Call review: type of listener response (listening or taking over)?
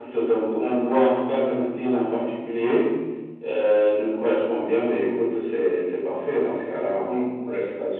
taking over